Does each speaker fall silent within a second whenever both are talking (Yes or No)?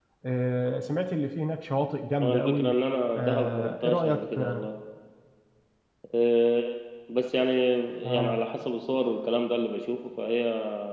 No